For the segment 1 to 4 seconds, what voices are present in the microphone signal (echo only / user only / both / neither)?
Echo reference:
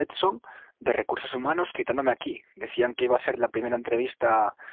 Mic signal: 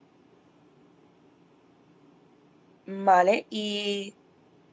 user only